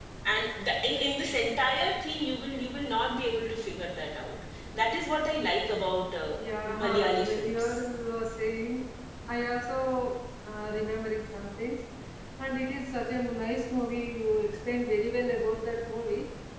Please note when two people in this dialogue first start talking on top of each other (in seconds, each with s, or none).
6.4 s